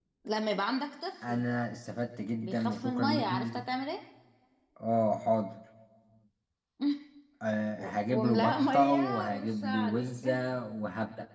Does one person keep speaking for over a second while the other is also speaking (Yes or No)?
Yes